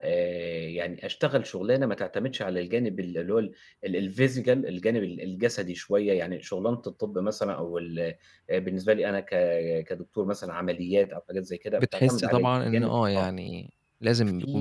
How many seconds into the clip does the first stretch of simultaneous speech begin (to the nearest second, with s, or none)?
12 s